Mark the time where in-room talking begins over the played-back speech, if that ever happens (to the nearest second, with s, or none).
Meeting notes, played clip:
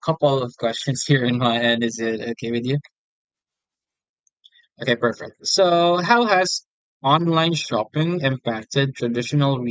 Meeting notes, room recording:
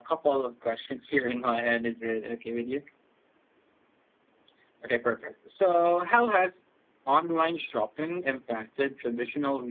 none